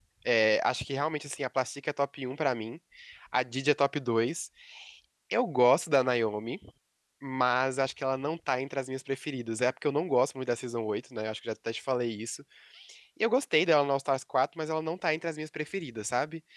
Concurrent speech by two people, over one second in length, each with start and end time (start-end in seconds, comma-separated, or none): none